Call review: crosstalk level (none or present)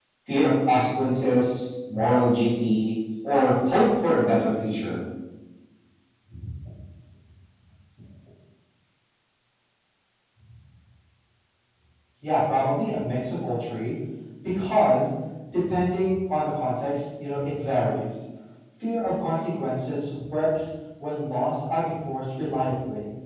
none